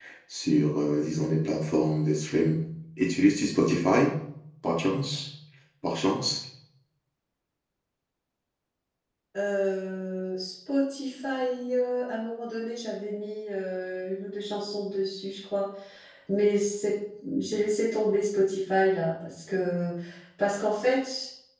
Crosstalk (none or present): none